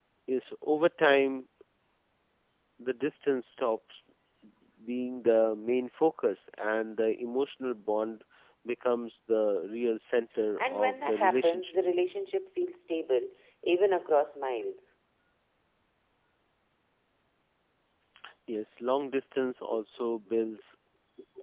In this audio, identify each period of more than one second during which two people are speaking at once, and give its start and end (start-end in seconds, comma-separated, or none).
10.6-11.8